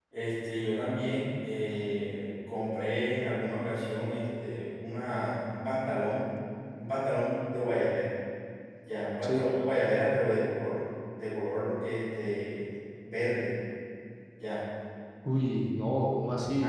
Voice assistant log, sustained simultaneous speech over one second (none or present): none